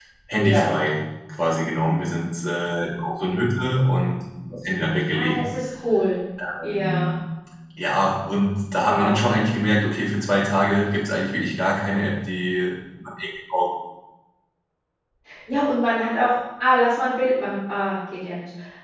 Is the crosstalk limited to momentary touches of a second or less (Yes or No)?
Yes